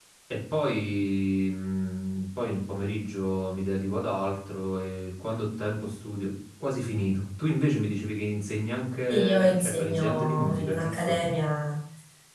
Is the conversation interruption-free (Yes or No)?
No